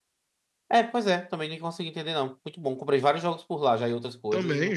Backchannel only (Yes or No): No